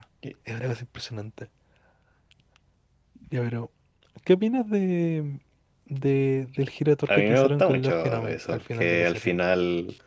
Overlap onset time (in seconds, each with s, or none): 7.1 s